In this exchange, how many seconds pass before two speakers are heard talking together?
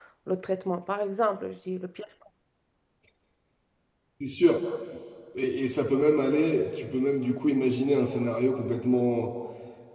none

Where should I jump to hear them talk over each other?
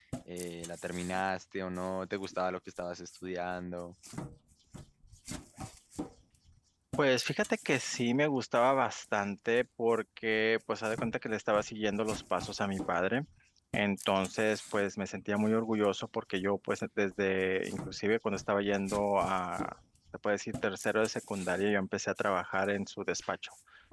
none

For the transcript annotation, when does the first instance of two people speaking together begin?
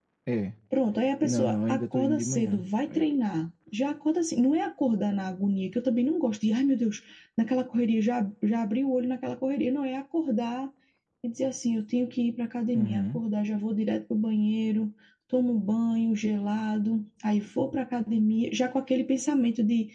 1.2 s

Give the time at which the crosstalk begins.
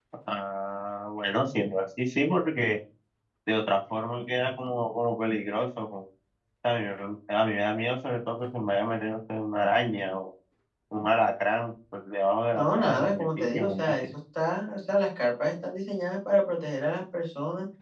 12.5 s

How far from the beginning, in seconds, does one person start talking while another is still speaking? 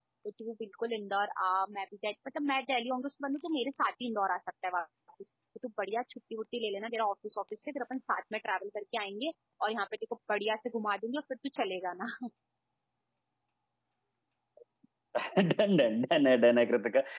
none

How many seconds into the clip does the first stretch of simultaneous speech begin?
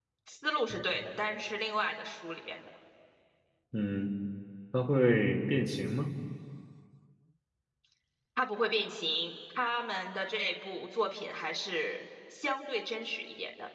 none

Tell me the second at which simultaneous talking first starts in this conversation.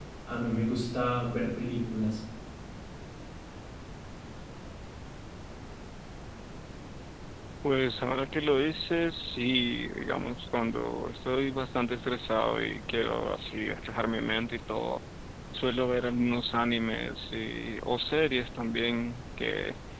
none

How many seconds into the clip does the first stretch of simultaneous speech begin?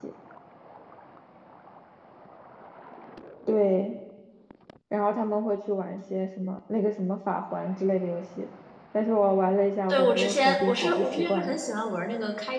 9.9 s

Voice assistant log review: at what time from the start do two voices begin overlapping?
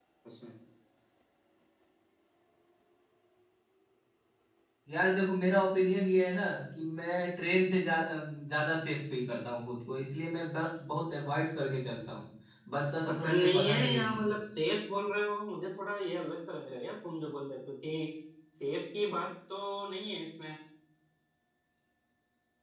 13.0 s

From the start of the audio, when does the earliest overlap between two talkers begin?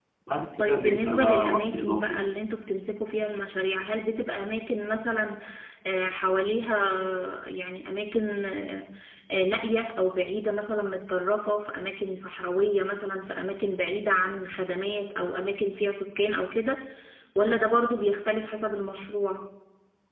0.6 s

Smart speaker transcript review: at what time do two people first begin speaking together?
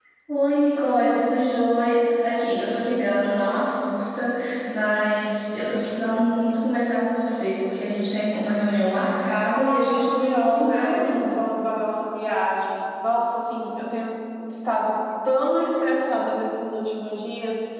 9.5 s

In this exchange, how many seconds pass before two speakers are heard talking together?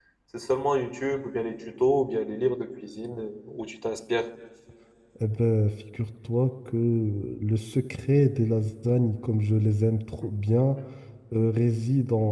none

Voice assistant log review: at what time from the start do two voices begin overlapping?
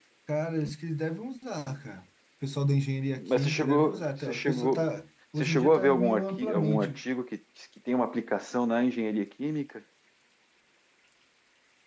3.2 s

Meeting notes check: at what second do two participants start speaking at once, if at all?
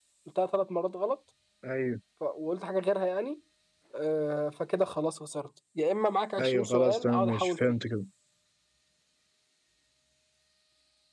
6.4 s

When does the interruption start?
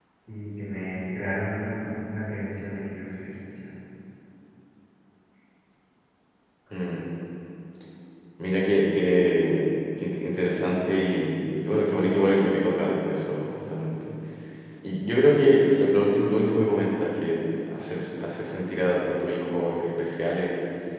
none

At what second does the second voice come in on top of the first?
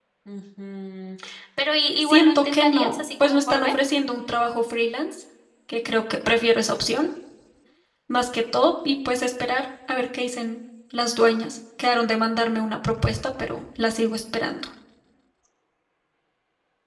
2.0 s

